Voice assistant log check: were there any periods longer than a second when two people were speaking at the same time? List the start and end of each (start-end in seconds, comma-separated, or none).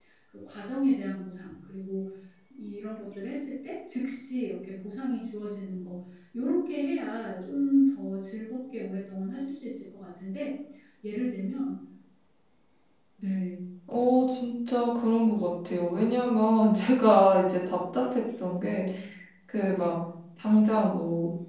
none